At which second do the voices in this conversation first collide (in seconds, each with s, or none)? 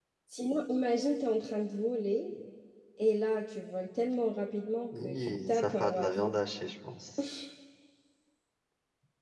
4.9 s